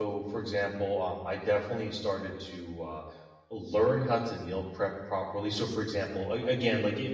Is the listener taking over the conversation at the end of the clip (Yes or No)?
No